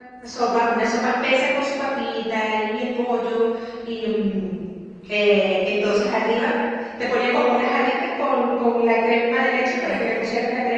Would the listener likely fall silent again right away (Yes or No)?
Yes